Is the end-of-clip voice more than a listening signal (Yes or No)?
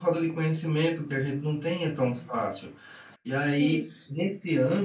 No